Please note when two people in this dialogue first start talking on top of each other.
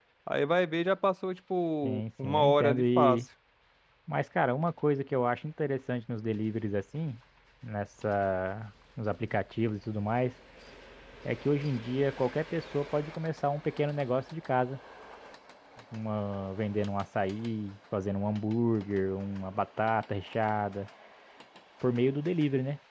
1.8 s

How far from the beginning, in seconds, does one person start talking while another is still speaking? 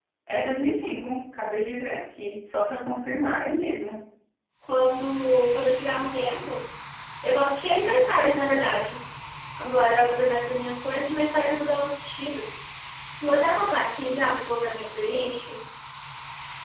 none

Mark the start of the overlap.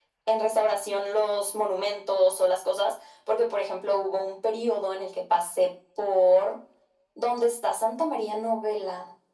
none

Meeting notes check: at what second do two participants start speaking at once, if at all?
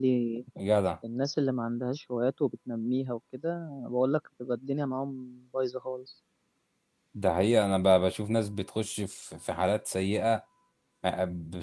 none

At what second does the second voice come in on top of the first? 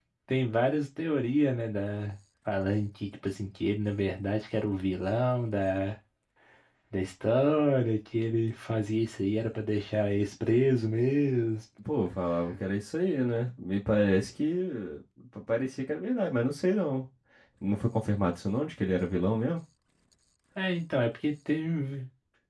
none

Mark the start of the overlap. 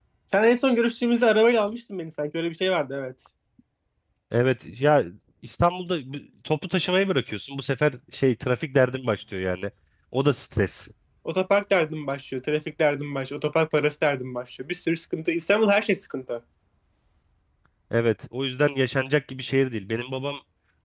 none

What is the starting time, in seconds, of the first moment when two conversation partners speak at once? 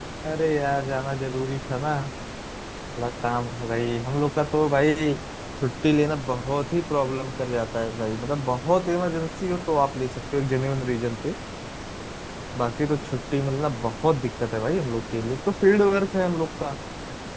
none

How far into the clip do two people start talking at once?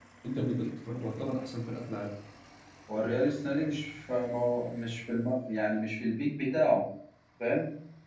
none

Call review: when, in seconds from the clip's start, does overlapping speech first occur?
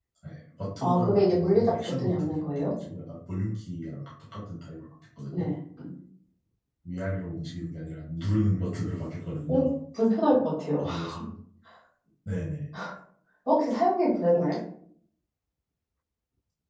0.8 s

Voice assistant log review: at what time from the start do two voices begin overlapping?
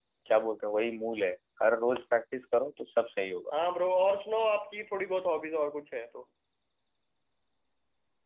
none

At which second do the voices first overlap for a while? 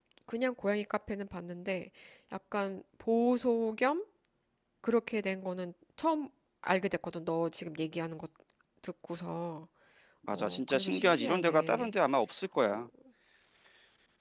10.3 s

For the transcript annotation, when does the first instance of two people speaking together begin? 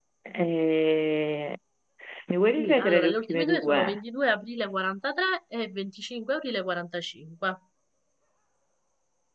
2.6 s

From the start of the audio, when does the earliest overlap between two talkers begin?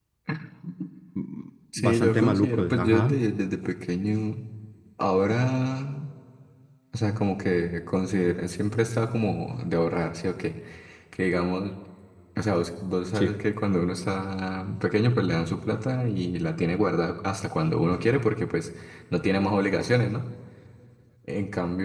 1.8 s

